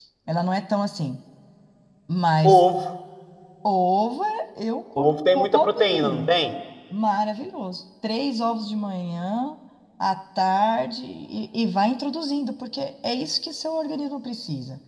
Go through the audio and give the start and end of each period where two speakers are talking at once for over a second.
5.0-6.3

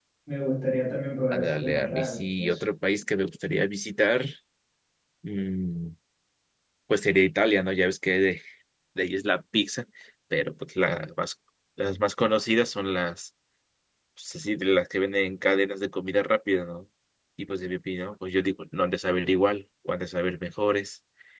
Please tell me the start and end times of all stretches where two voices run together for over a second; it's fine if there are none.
1.3-2.5

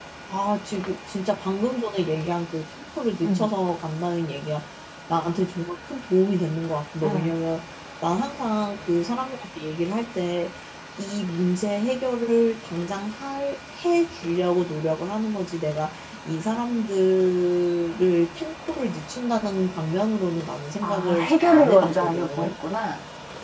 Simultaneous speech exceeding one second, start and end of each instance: 20.8-22.5

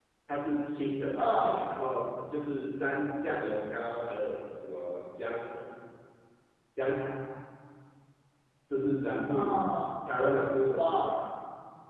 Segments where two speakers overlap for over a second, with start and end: none

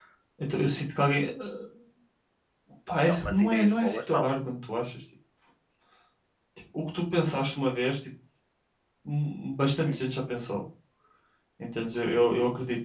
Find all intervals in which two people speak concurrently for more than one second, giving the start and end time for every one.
3.1-4.3

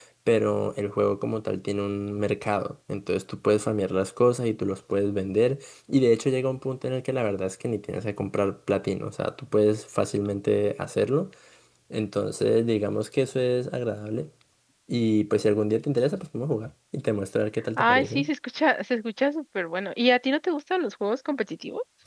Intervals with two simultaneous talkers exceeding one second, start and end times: none

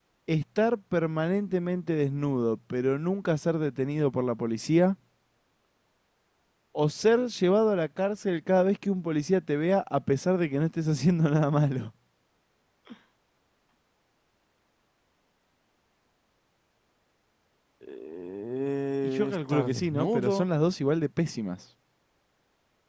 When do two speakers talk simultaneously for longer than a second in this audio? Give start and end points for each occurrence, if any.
19.0-20.4

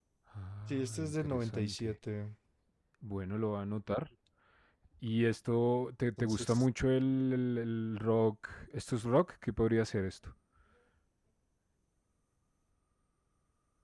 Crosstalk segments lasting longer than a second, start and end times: 0.7-1.9

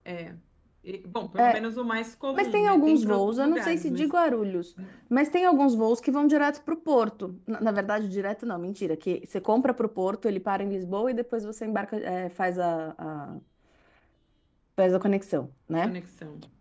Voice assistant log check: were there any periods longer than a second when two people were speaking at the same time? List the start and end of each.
2.3-4.1

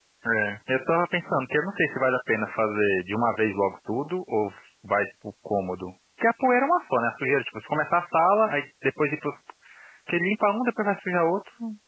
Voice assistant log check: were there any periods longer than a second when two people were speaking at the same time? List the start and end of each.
none

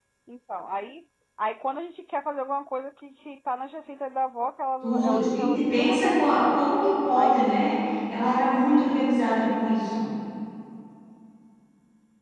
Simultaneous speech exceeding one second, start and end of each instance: 4.8-6.6

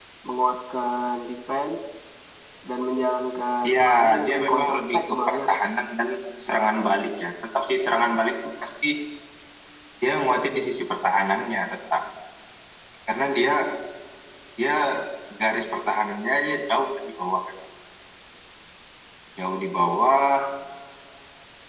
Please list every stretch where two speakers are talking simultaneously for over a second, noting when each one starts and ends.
3.6-5.4

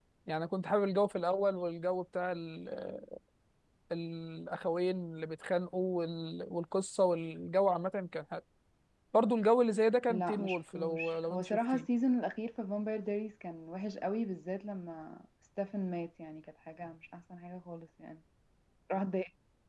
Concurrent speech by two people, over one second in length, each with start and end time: 10.1-11.9

